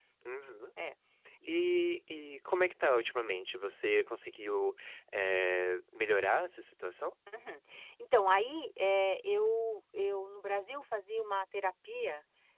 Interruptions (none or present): none